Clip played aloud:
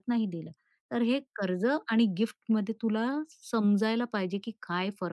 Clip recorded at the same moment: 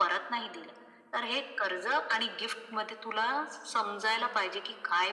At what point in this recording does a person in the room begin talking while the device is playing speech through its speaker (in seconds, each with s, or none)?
none